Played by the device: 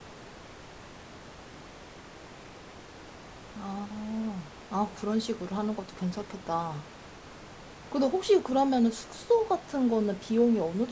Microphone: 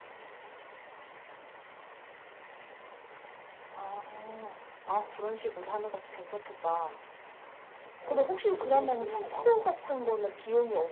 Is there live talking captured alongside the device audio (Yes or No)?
Yes